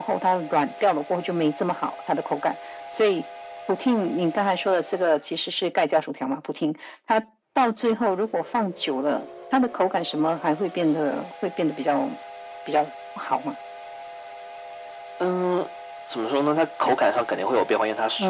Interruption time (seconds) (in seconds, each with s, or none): none